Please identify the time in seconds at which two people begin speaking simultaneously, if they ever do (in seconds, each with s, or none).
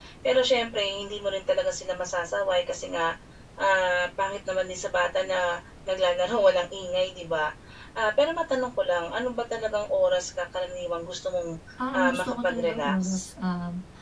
12.0 s